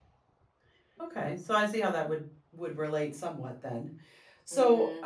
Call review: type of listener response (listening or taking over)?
taking over